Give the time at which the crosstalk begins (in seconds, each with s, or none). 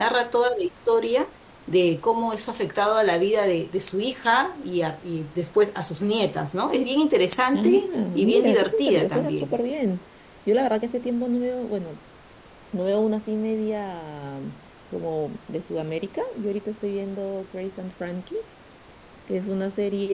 7.5 s